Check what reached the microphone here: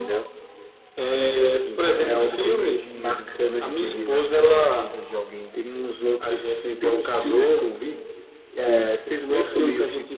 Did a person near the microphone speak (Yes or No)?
Yes